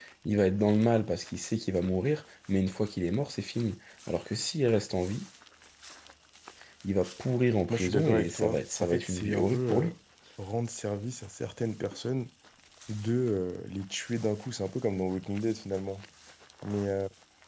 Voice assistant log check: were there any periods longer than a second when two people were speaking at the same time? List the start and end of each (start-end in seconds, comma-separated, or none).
7.7-9.9